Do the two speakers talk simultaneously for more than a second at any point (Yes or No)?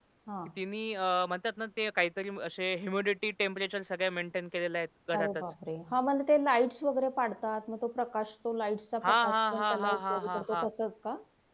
Yes